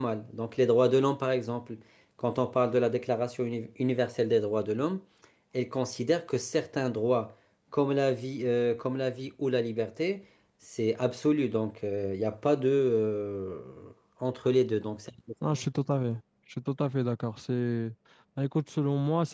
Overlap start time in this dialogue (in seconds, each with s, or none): none